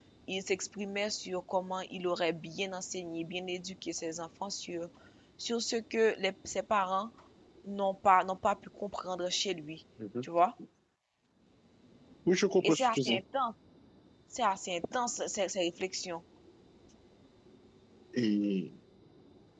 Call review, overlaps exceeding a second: none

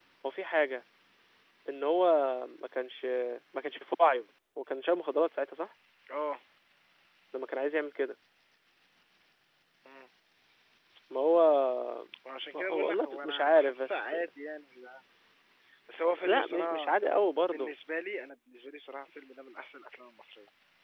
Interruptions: present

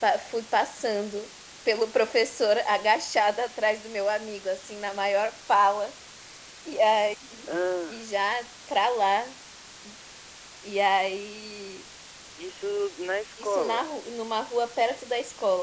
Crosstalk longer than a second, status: none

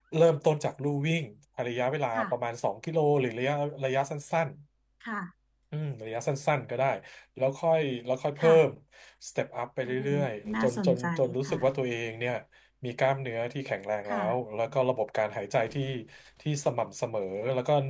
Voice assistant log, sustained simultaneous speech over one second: present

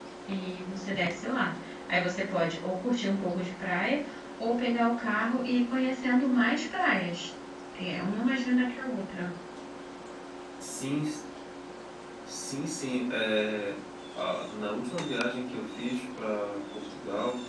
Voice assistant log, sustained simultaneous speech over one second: none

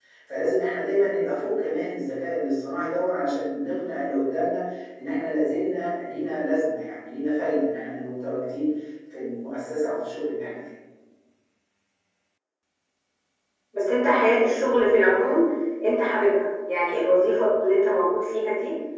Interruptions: none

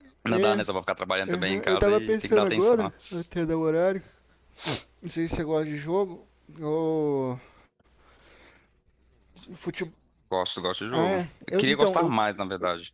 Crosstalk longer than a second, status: present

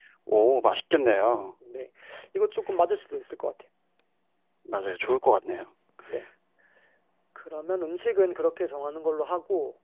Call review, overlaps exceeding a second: none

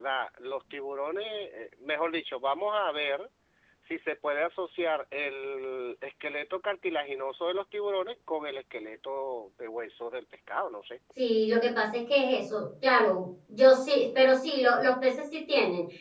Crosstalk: none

